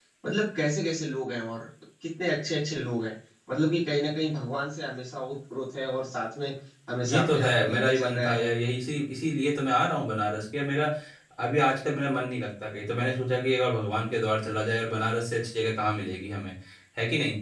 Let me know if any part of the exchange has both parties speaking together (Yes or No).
Yes